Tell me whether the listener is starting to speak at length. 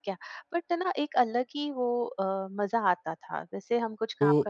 Yes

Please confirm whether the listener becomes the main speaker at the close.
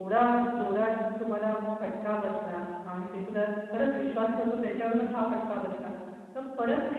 No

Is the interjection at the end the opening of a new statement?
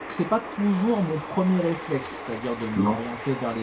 No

